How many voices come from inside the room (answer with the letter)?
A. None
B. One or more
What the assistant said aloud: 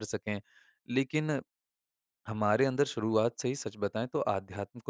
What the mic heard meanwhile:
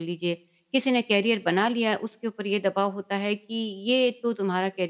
B